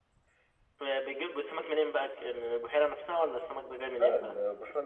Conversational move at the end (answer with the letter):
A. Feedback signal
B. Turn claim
B